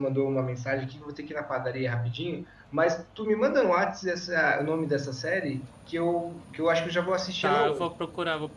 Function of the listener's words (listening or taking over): taking over